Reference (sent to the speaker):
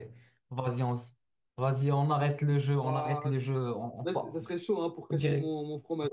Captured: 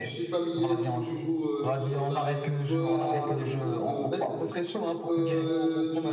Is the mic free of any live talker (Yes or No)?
No